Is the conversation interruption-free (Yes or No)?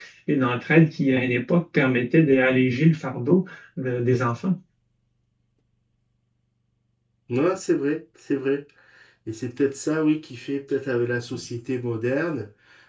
Yes